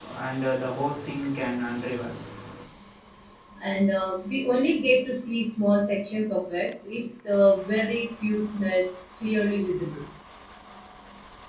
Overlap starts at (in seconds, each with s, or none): none